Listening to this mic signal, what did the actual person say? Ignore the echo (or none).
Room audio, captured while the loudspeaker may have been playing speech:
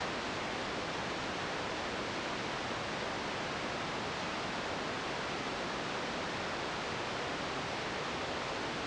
none